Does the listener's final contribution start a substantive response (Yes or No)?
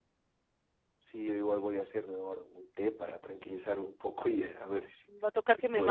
Yes